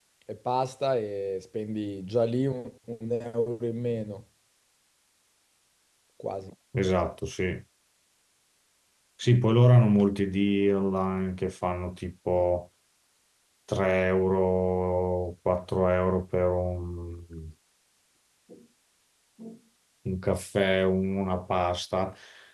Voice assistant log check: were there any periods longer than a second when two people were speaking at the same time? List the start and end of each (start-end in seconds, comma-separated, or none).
none